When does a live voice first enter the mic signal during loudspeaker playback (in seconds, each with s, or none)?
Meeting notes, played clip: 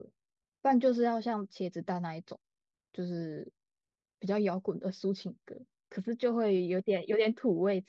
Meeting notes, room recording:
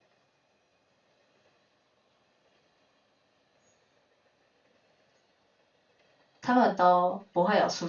6.4 s